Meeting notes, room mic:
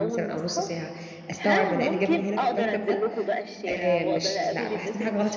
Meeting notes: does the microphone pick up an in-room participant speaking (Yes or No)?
Yes